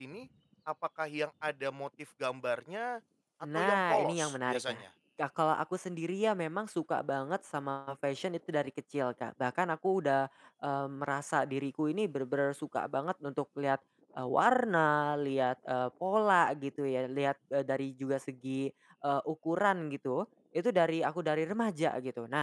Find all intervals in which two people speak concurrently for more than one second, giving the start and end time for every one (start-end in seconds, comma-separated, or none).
3.5-4.8